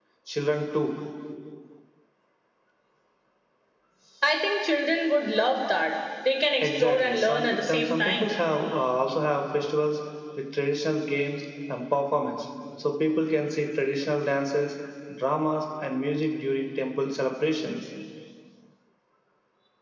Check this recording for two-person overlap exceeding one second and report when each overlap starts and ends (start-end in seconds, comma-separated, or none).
6.6-8.3